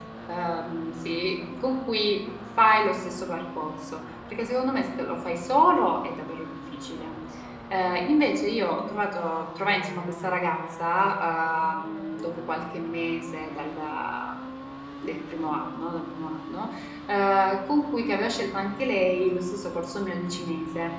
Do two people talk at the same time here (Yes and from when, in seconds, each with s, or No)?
No